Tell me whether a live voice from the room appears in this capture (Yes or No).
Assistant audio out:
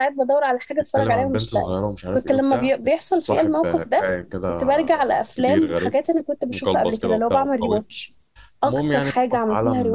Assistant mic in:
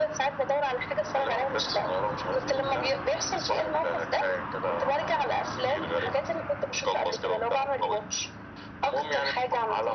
No